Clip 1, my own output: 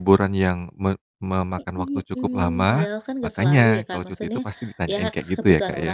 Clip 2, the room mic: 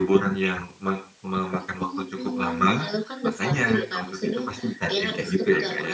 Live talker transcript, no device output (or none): none